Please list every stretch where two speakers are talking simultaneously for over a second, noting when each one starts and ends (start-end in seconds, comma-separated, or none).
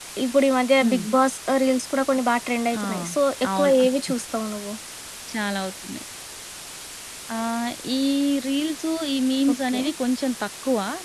none